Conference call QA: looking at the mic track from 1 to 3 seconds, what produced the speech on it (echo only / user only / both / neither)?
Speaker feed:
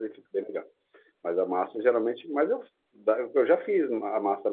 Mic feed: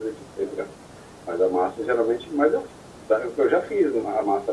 echo only